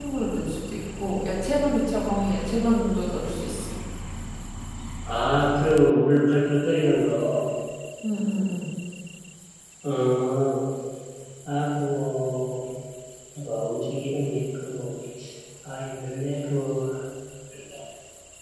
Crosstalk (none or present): none